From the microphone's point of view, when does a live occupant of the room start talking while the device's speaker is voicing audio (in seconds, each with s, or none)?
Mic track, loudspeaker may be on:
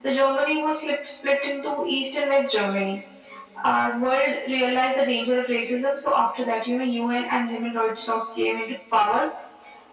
none